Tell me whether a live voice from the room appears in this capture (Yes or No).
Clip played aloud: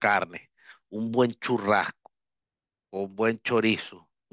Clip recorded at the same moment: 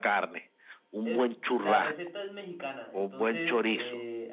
Yes